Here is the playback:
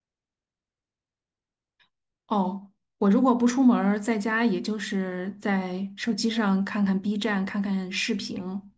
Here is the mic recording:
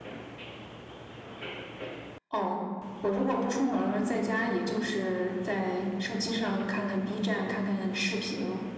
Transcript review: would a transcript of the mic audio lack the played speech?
No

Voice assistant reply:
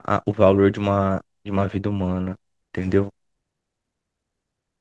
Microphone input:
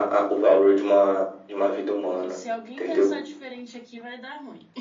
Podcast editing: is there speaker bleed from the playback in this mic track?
Yes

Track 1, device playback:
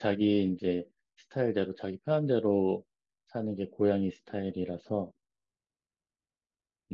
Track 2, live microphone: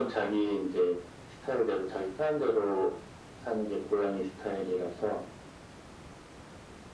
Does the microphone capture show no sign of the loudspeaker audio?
No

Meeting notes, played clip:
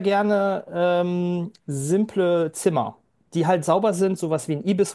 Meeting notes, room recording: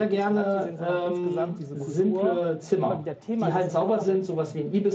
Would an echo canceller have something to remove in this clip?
Yes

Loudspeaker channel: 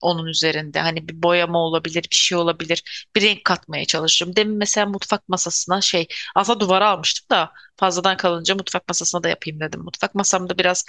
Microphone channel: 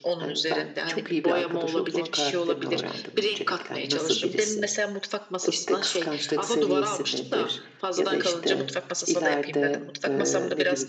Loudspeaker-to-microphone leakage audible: Yes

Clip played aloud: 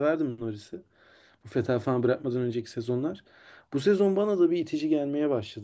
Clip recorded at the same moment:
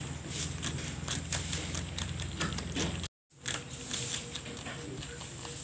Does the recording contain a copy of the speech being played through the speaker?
No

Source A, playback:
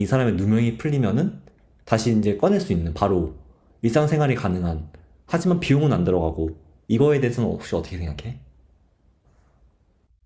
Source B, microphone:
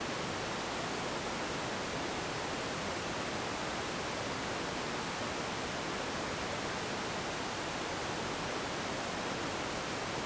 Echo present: No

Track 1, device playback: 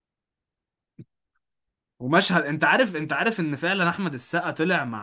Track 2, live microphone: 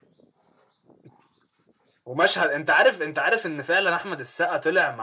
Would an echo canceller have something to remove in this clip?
Yes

